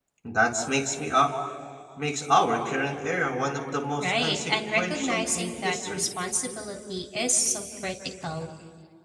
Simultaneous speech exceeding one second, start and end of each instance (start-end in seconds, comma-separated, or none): 4.0-6.1